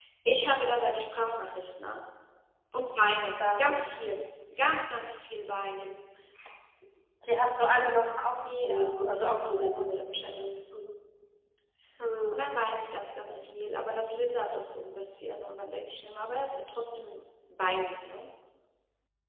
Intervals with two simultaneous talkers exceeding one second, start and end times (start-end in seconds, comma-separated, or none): 8.6-10.3